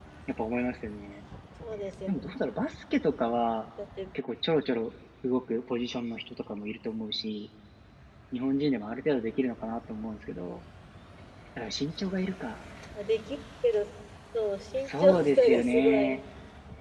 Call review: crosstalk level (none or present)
present